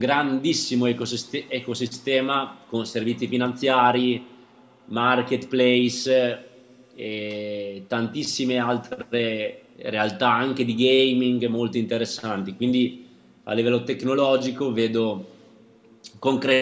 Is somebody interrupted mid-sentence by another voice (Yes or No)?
No